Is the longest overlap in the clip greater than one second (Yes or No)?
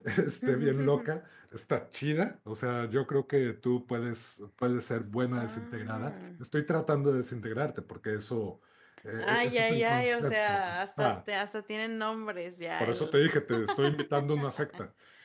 Yes